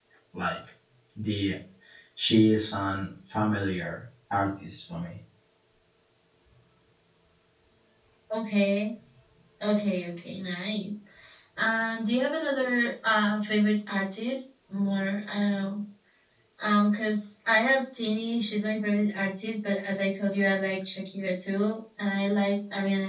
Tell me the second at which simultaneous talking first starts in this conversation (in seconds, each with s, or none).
none